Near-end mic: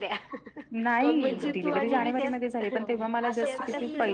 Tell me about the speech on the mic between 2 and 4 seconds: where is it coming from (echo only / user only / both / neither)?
both